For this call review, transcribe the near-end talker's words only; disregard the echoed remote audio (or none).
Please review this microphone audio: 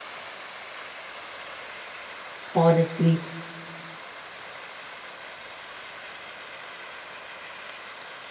Honestly,